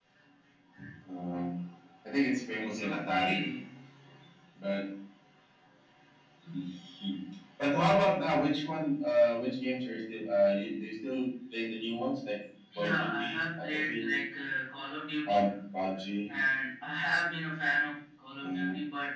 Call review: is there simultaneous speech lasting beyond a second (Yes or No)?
Yes